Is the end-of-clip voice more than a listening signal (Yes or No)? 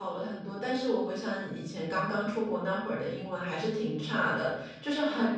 No